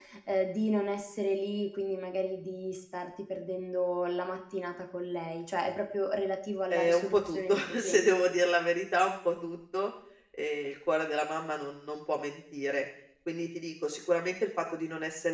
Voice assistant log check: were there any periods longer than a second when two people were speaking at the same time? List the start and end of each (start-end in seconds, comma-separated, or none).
6.7-8.1